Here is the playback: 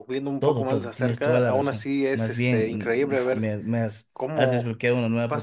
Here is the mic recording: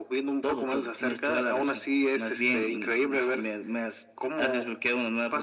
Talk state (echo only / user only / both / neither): echo only